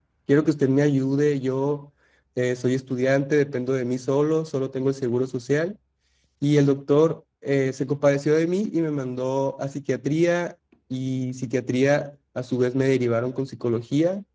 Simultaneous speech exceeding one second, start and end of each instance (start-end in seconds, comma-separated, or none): none